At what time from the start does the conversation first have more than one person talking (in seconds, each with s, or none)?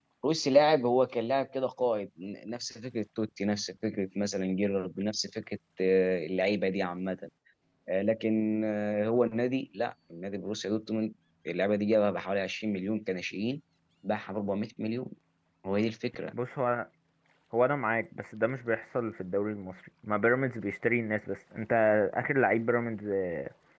none